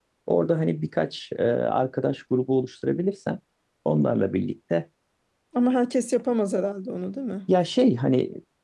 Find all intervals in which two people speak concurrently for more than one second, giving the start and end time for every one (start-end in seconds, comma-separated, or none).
none